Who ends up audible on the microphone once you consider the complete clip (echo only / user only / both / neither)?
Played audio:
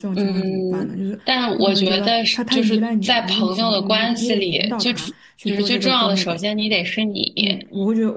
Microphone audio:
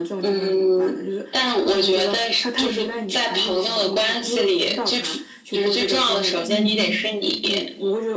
both